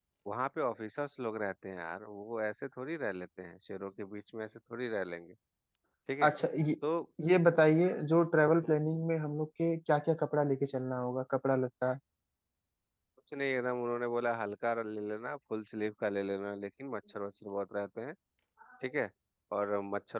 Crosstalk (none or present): none